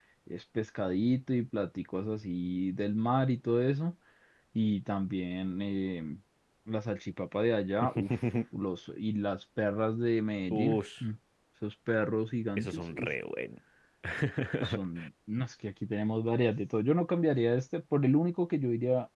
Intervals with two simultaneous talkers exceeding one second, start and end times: none

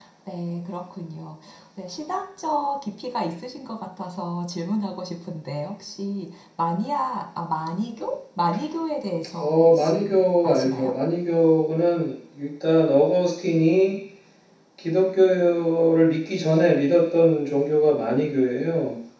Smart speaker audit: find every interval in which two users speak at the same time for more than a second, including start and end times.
9.4-10.9

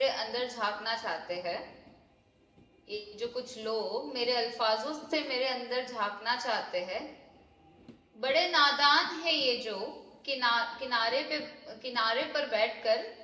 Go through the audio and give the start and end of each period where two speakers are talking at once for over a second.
none

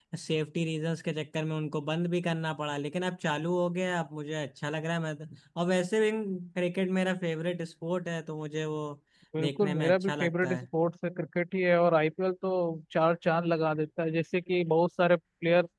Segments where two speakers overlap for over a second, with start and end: 9.4-10.7

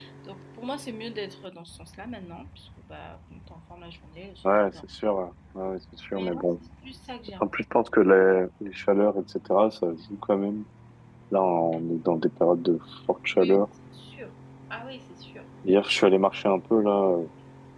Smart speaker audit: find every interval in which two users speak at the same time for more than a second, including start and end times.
none

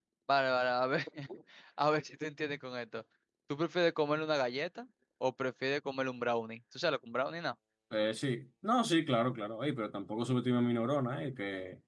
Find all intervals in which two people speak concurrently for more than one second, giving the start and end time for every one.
none

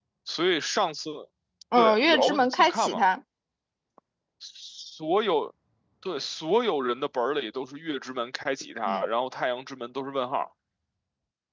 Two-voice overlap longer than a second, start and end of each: 1.8-3.0

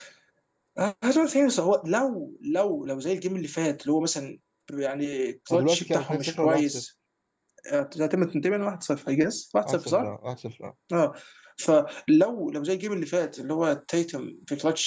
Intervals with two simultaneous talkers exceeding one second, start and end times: 5.5-6.8

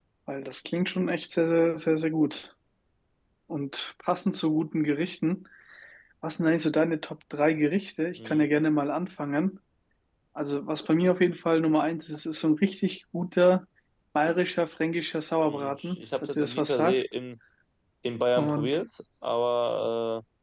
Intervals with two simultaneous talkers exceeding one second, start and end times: 15.5-17.0

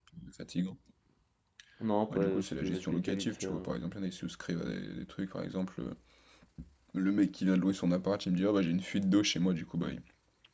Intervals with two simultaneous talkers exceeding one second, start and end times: 2.1-3.7

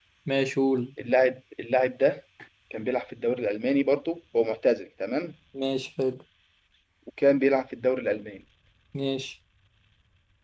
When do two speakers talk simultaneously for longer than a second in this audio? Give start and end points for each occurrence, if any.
none

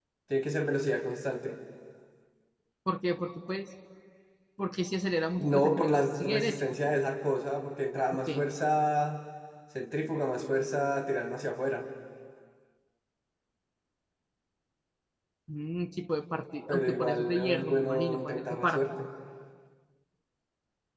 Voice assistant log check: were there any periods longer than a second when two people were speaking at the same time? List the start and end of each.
5.4-6.8, 16.7-18.8

